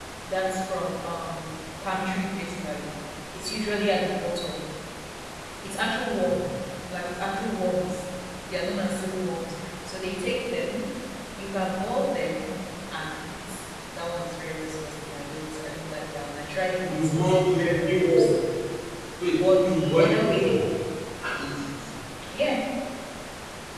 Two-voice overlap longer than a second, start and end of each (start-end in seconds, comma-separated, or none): 16.9-18.3, 19.3-20.5